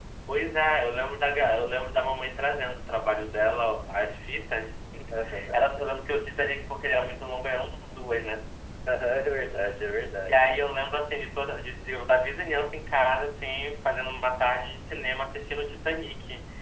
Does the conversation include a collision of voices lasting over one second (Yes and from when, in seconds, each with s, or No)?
No